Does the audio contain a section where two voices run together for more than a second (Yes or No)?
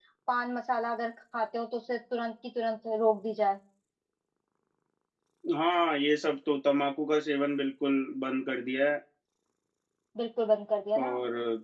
No